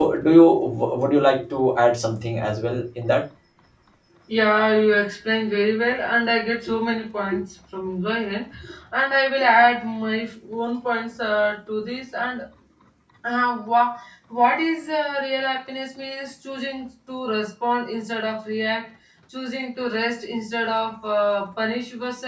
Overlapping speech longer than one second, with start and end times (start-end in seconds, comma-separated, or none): none